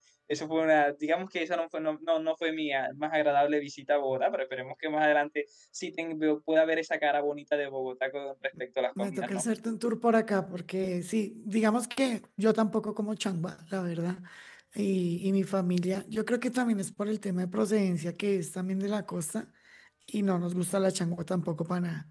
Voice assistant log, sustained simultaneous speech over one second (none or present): none